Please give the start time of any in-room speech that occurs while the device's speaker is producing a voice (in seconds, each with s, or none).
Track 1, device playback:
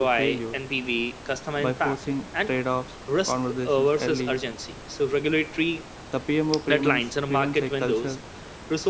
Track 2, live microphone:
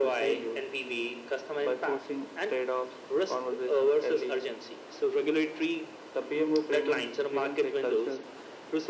none